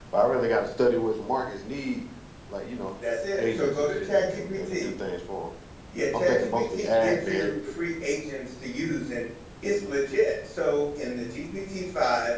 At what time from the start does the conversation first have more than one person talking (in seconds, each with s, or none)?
3.4 s